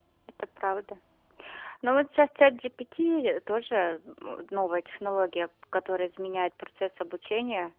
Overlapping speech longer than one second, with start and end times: none

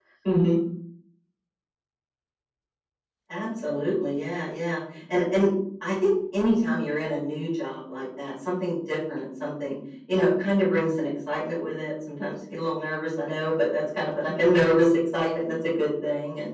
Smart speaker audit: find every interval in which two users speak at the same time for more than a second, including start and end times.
none

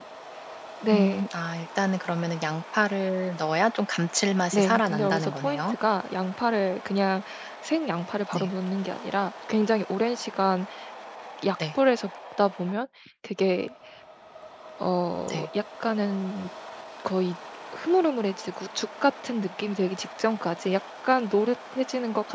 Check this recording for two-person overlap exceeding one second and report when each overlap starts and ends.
4.5-5.8

